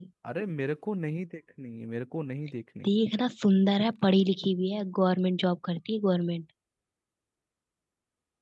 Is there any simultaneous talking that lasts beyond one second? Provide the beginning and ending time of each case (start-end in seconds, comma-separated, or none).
none